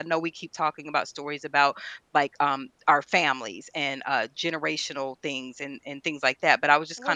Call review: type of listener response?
taking over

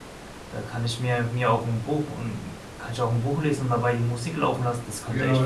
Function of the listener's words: taking over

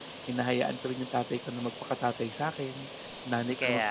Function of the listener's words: listening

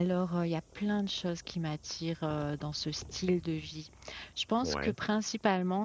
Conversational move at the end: listening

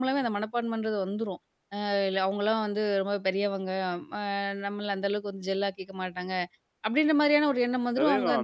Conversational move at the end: taking over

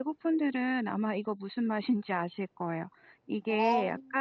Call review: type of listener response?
listening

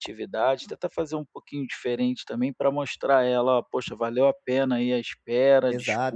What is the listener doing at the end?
taking over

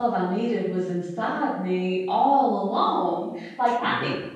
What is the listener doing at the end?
listening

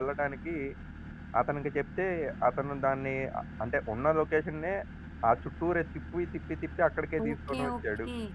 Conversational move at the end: taking over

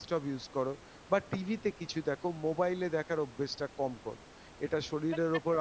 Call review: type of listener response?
listening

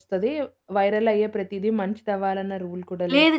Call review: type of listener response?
taking over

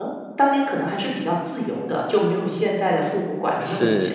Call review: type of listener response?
taking over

